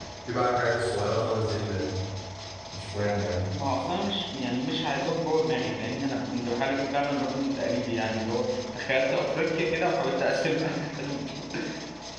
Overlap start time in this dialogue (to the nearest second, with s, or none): none